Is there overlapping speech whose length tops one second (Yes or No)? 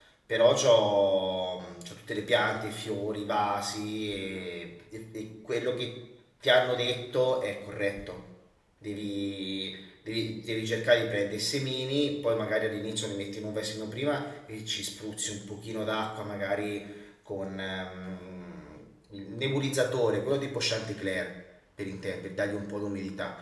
No